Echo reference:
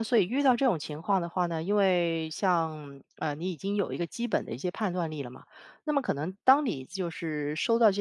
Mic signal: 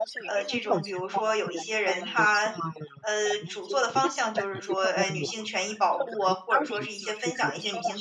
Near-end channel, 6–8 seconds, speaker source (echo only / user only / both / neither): both